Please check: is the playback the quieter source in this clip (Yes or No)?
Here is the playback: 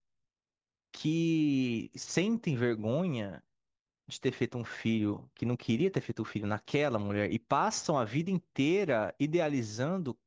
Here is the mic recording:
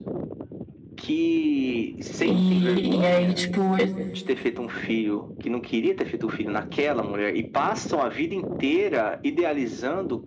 Yes